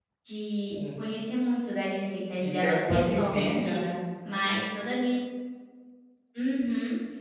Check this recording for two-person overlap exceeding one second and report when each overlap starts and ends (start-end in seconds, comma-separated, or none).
2.4-3.8